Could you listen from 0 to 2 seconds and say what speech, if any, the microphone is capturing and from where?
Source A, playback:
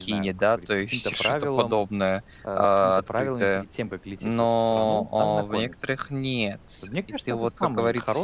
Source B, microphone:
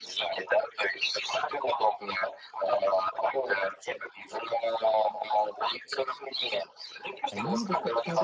echo only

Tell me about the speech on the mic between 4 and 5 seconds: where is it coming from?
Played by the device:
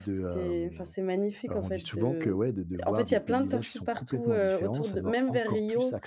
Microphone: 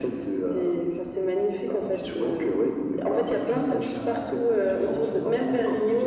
both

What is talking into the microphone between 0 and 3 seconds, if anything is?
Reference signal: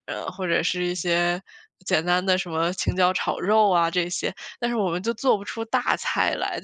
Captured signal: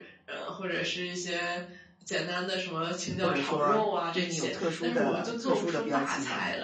echo only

